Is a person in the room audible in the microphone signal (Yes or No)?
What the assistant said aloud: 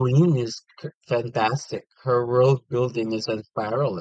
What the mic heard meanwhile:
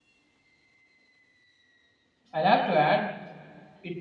Yes